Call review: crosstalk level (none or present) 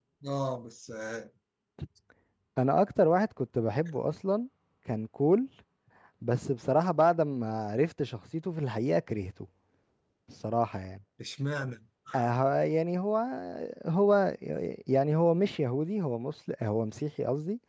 none